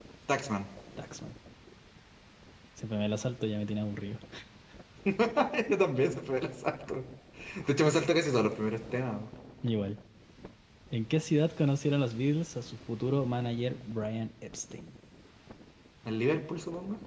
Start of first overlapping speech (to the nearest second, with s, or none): none